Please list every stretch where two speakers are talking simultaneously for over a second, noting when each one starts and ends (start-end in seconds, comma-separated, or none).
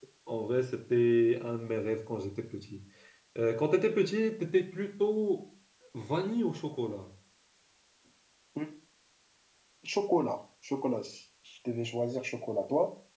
none